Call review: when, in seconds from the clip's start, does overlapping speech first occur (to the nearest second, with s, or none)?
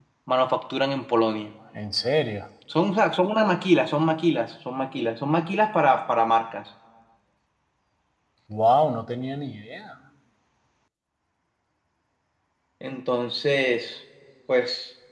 none